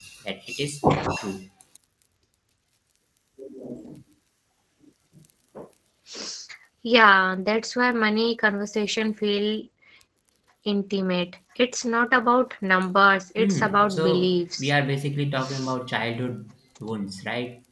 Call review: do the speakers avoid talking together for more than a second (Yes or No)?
No